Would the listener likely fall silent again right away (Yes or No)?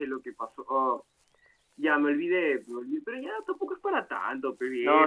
No